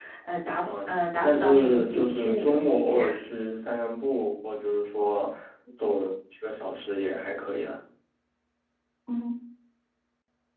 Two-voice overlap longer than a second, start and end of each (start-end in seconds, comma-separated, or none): 0.6-3.0